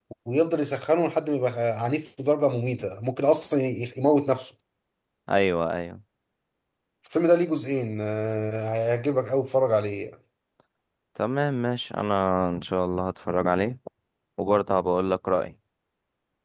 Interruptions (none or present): none